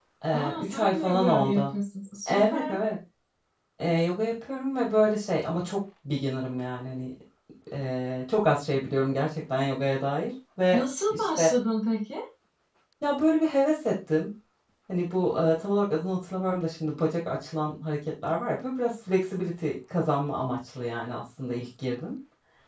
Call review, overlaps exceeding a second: present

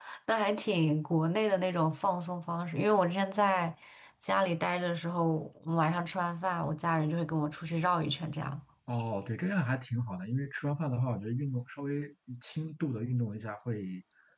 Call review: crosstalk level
none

